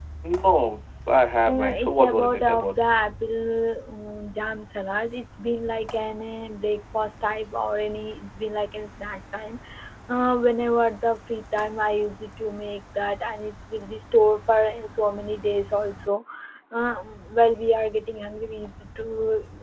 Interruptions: present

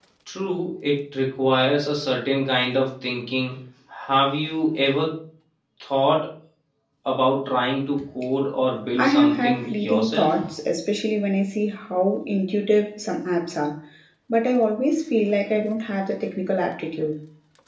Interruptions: present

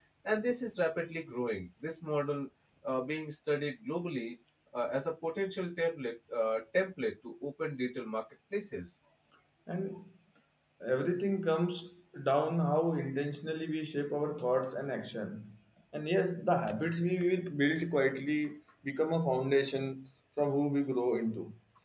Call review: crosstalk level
none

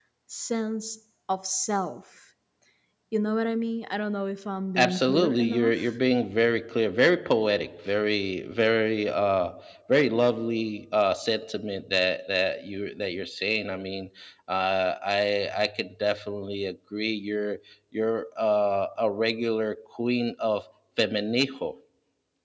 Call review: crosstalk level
present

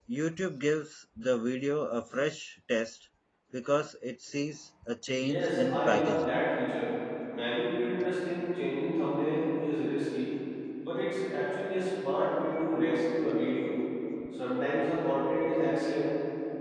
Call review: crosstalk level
present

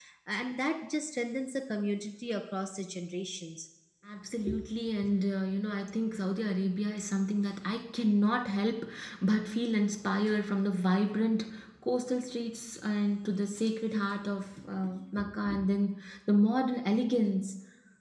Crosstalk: none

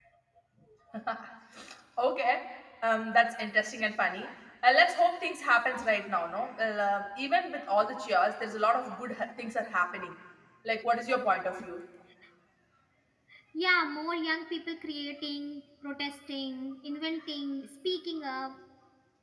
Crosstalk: none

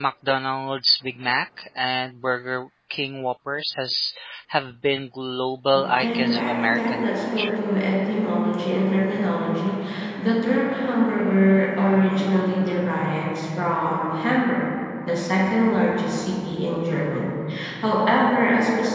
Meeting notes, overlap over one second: present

